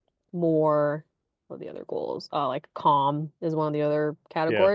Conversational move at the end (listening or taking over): listening